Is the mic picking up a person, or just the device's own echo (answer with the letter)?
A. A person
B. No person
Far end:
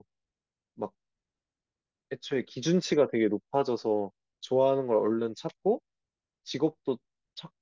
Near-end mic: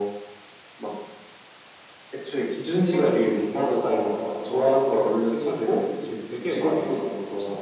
A